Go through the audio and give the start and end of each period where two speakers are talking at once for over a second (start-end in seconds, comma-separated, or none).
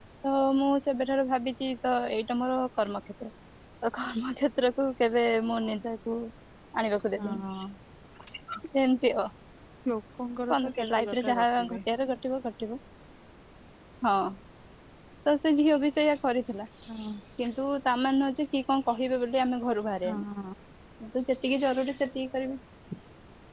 10.5-11.8